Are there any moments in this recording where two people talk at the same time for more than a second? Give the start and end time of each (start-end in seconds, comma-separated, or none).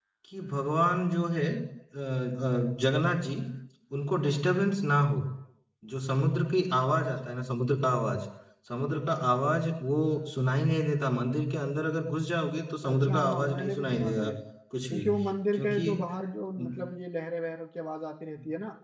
12.9-14.3